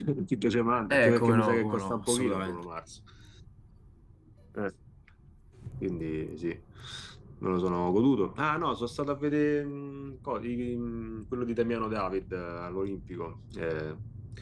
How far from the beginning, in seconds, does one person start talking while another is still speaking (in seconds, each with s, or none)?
0.9 s